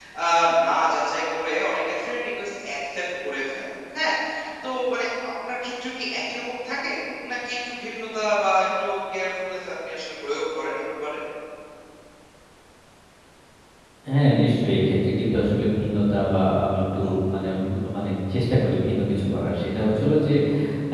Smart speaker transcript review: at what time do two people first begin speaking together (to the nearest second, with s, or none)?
none